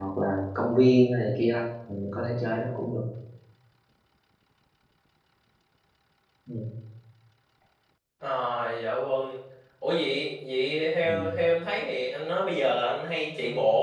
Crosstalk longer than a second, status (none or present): none